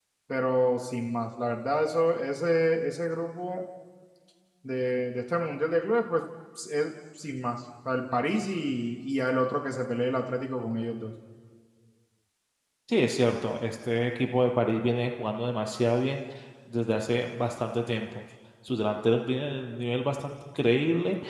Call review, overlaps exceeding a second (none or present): none